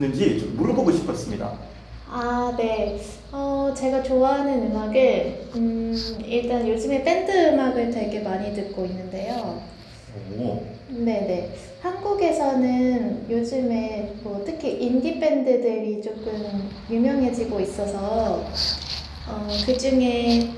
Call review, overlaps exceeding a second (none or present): none